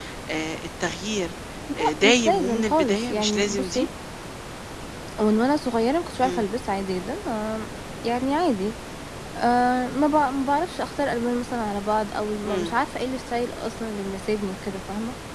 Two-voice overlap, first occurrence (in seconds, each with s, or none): 1.8 s